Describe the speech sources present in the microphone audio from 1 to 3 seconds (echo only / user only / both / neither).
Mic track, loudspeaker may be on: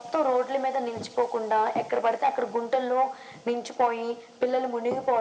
echo only